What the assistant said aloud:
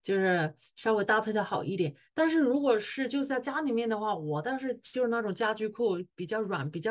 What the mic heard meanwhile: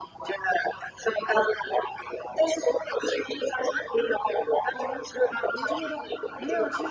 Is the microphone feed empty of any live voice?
No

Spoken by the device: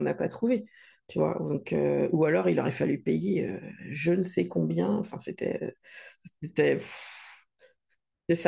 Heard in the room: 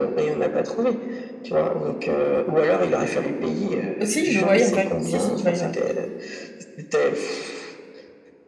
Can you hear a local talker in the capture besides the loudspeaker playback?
Yes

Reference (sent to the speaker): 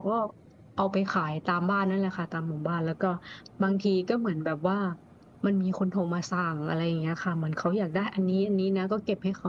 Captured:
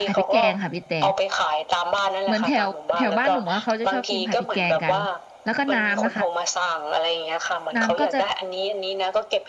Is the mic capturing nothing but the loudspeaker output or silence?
No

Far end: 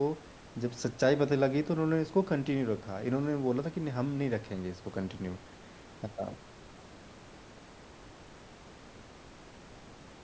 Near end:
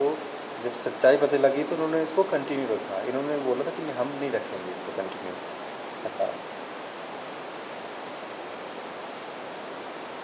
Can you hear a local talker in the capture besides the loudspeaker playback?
No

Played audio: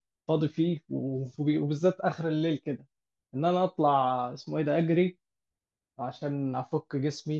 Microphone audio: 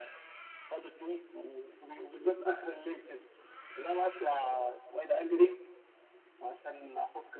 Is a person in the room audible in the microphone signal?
No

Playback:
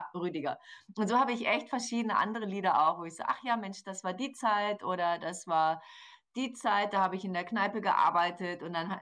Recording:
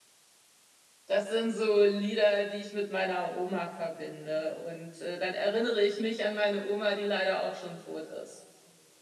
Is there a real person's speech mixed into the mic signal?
Yes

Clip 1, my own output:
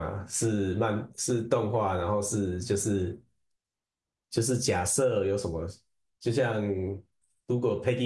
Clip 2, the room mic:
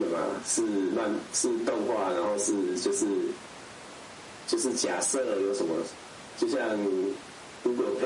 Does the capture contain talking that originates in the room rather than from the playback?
No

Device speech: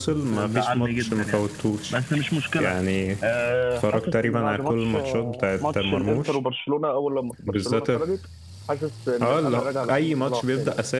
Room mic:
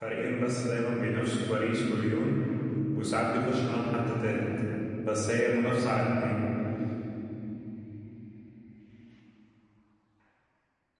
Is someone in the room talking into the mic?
Yes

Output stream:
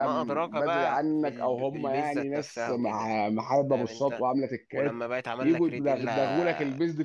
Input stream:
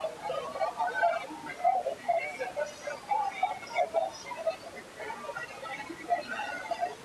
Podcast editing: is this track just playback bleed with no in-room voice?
Yes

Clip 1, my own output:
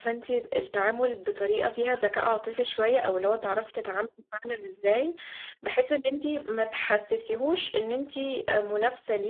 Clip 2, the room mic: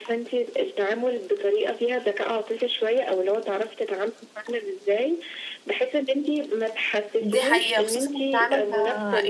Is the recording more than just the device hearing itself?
Yes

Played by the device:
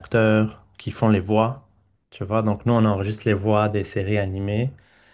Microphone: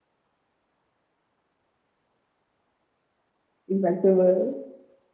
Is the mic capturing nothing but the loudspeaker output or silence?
No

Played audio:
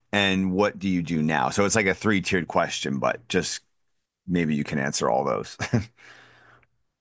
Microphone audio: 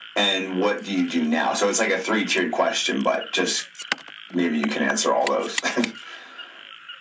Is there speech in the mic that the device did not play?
No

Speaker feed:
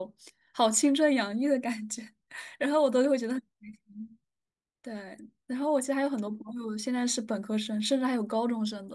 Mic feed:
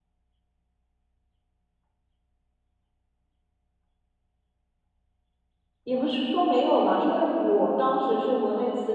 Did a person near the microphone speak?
Yes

